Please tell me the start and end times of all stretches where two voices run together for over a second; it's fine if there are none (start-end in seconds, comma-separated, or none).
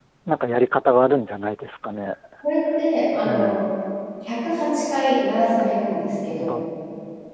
none